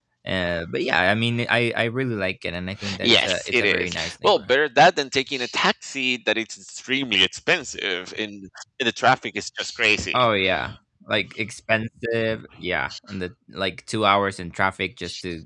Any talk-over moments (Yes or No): Yes